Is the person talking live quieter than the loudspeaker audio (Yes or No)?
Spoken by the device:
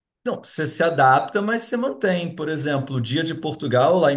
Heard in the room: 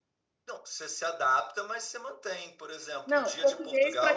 No